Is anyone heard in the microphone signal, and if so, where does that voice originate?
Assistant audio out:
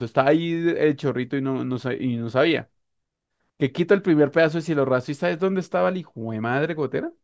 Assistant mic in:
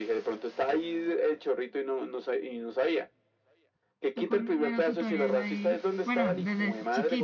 both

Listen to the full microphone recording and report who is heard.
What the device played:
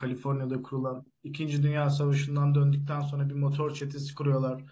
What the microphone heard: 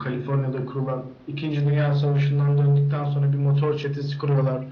echo only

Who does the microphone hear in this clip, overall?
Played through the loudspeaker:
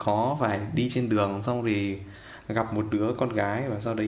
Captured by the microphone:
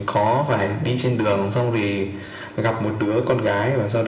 echo only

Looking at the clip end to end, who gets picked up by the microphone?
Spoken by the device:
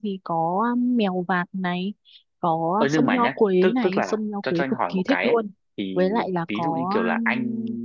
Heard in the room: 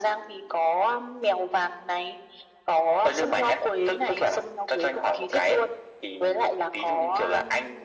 echo only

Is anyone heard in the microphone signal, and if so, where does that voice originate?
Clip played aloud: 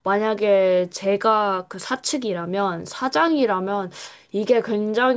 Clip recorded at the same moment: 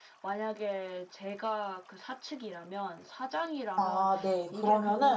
both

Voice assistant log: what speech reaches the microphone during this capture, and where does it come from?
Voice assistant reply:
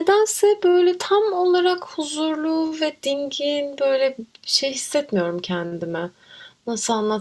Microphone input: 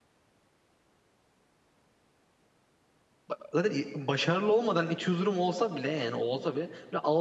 user only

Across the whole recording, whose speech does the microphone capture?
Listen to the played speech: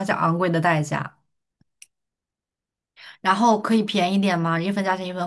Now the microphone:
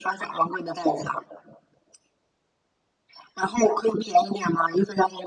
echo only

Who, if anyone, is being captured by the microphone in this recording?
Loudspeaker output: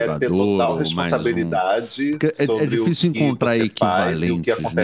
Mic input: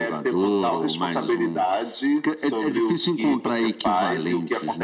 echo only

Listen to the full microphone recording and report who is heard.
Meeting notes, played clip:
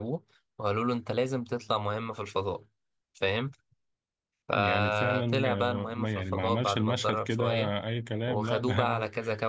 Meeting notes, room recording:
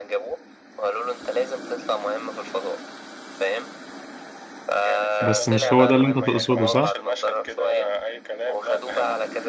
both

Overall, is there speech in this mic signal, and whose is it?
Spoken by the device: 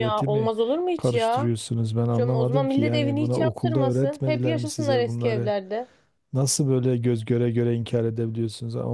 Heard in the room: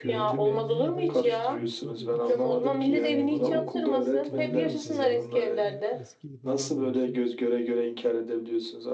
both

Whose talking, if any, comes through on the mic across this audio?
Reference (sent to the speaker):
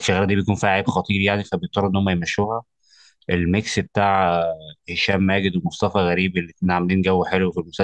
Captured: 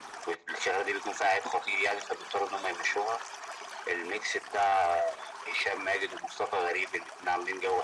echo only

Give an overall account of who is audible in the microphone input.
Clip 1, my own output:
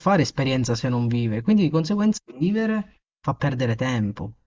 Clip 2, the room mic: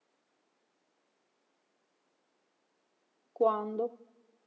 user only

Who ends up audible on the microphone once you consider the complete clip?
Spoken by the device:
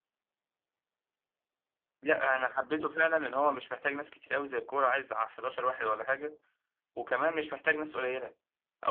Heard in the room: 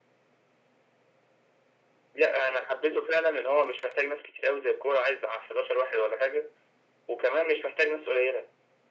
echo only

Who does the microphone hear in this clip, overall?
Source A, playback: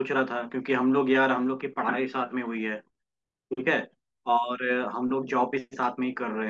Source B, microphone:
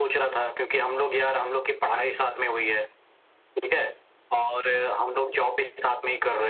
echo only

